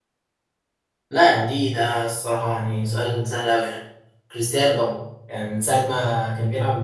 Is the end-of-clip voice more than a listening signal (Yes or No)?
No